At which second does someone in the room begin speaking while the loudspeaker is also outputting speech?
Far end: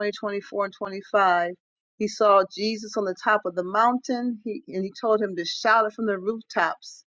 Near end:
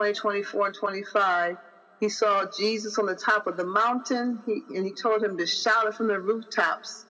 none

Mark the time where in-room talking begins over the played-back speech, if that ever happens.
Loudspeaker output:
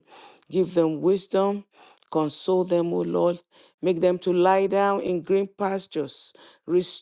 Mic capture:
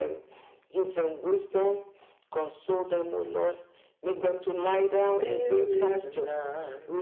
5.2 s

